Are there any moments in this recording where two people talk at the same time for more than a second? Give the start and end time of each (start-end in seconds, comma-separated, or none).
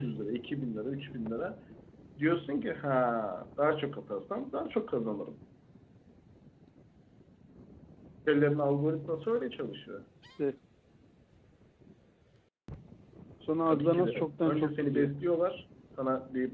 13.7-15.1